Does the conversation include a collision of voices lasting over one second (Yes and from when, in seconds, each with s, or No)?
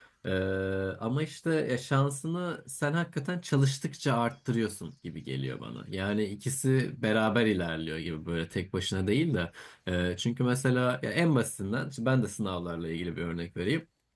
No